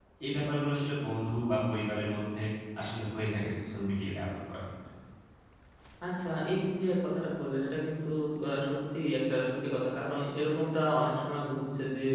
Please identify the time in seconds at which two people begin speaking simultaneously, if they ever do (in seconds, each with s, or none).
none